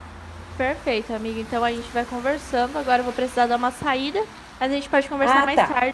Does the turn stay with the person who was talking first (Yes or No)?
No